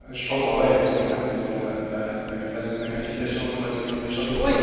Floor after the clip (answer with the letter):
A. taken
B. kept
A